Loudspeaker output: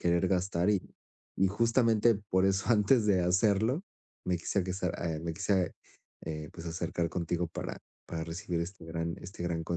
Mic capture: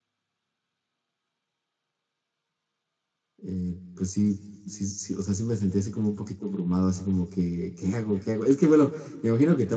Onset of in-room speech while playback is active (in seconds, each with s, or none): 3.4 s